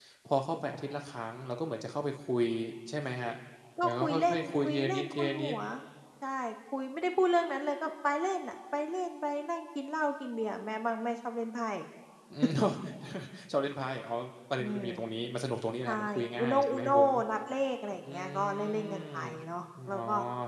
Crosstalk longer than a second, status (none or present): present